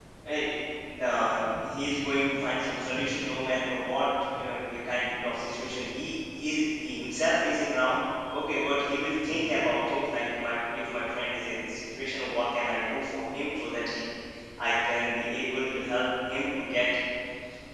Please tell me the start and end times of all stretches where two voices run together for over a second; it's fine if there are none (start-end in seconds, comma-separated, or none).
none